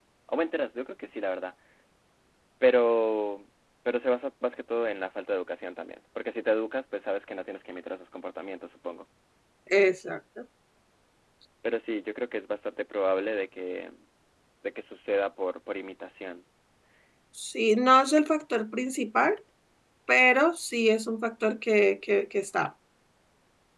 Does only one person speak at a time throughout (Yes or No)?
Yes